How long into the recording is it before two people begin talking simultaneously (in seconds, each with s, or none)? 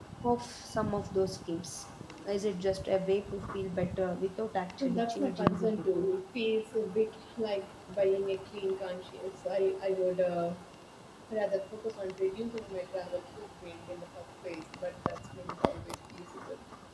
4.8 s